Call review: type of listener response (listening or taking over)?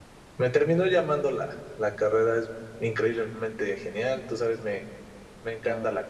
listening